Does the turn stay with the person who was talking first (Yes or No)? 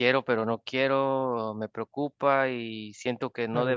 Yes